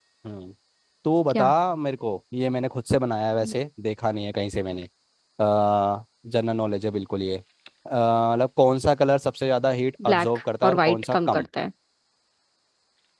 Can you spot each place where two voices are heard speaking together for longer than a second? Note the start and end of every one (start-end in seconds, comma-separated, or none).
10.1-11.4